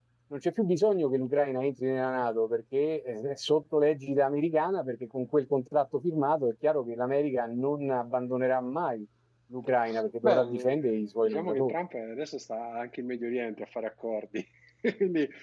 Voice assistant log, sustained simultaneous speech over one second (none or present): present